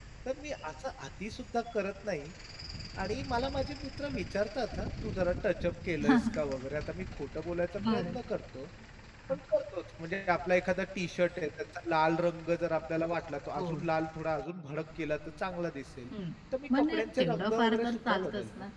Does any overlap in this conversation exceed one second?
Yes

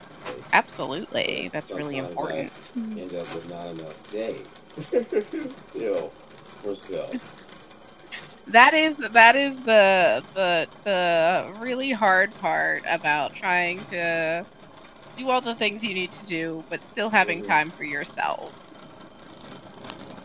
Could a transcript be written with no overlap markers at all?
No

